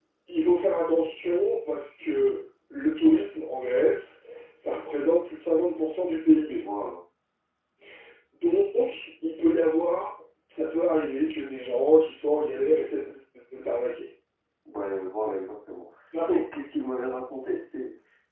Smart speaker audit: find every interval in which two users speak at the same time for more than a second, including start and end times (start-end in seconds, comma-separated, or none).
none